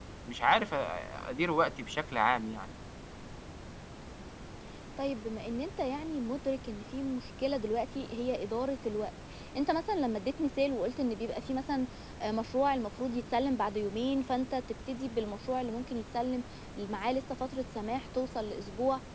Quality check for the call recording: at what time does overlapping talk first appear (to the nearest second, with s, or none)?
none